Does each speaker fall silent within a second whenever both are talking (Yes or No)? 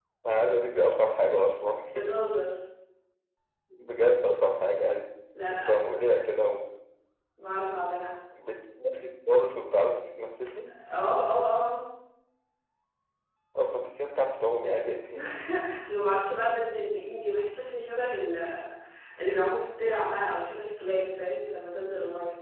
Yes